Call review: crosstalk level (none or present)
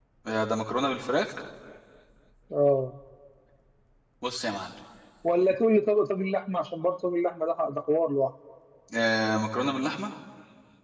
none